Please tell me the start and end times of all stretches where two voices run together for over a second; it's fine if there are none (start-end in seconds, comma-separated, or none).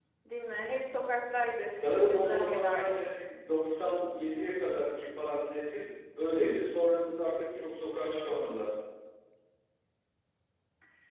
1.8-3.2